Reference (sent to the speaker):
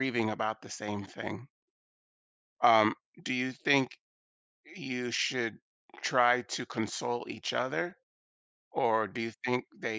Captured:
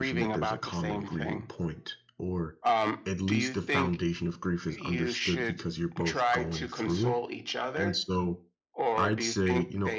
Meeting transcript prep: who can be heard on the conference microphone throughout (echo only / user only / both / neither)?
both